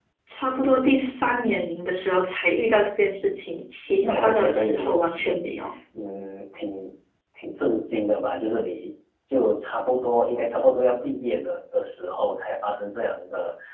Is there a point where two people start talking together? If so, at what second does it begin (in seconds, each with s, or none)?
4.0 s